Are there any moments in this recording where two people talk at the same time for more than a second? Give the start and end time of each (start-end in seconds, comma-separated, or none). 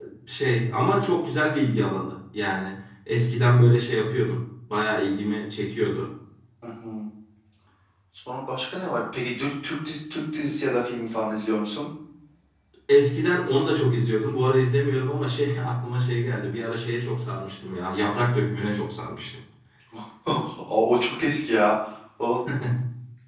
none